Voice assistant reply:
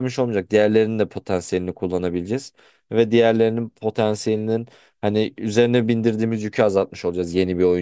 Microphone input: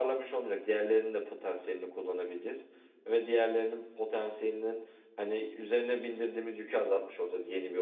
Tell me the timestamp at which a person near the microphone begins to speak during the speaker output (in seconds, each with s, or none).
none